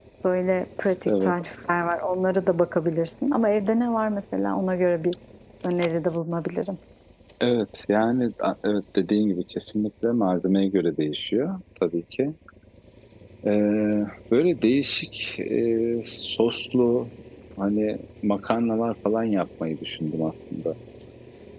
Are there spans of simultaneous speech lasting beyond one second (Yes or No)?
No